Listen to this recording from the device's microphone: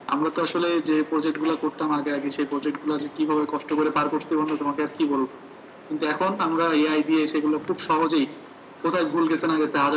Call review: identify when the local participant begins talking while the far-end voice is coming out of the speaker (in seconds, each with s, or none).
none